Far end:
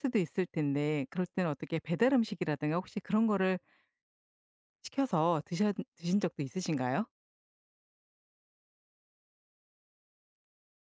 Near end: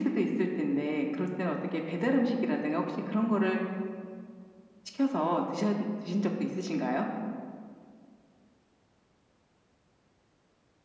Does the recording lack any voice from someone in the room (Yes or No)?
Yes